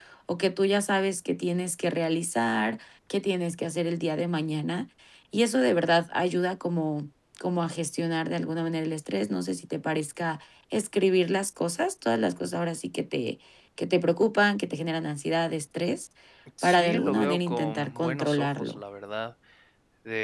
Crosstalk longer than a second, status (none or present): present